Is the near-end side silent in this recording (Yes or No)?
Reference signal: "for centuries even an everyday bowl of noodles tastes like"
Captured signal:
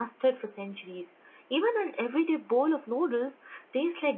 Yes